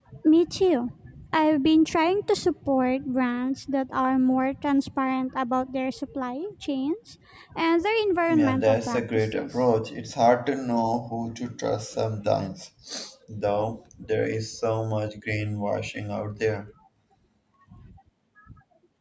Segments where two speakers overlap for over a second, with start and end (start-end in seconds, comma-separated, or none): 8.3-9.5